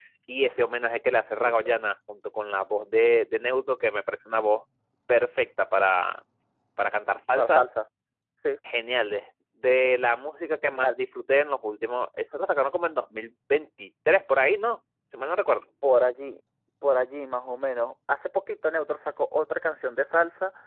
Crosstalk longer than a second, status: none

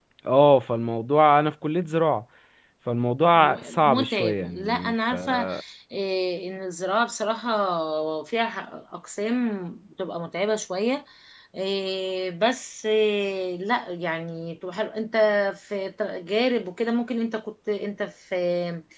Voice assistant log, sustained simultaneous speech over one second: present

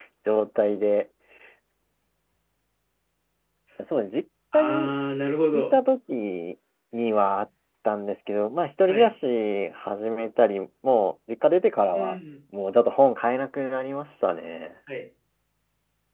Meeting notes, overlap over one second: none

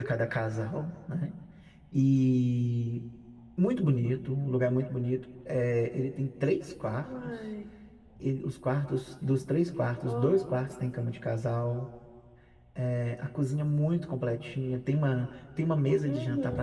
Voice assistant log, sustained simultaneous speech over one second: none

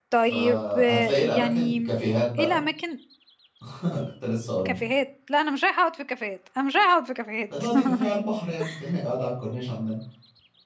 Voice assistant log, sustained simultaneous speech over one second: present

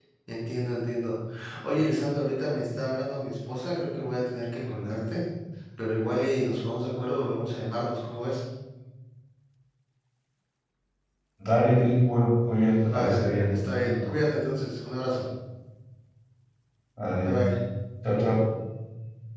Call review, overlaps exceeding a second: present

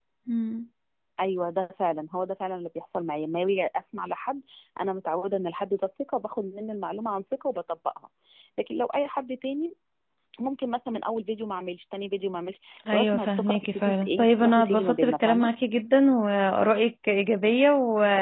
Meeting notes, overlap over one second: present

